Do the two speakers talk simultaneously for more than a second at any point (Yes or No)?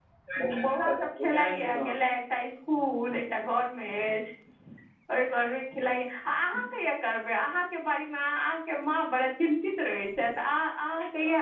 Yes